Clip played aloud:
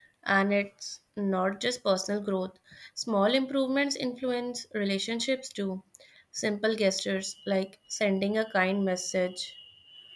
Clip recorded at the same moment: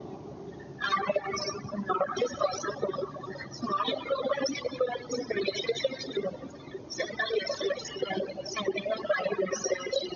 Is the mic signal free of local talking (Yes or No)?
Yes